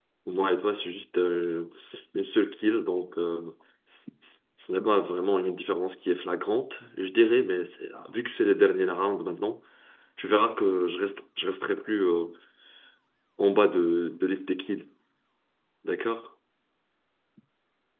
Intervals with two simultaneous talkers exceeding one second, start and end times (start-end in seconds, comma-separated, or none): none